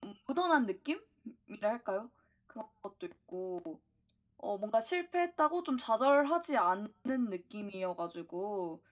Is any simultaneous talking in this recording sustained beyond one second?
No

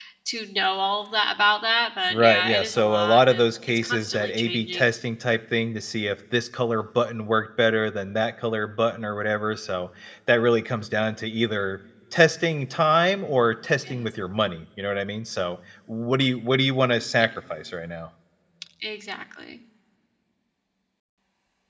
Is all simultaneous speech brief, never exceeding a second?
No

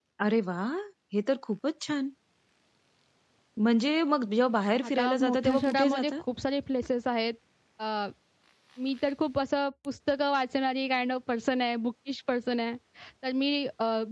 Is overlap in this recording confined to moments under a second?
No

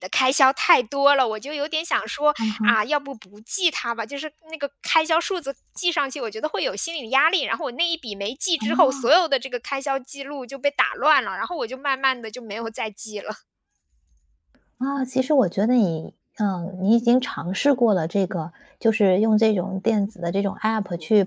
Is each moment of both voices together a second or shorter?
Yes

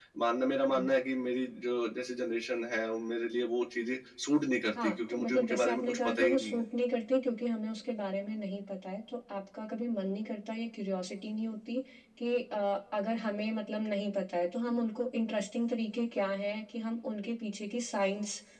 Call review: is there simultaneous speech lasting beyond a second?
Yes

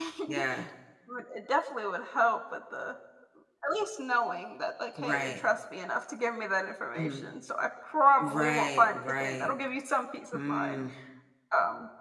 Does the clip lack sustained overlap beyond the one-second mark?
No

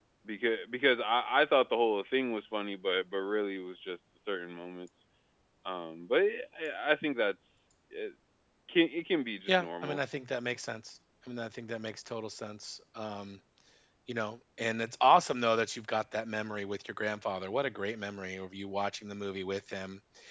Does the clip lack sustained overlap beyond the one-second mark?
Yes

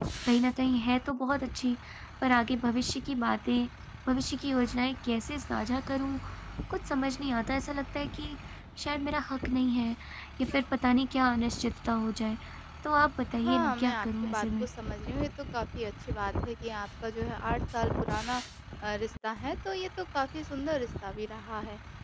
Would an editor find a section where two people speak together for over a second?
Yes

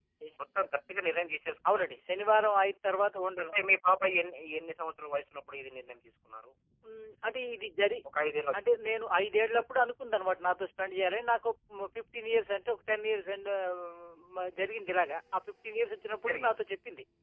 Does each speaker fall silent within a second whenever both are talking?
Yes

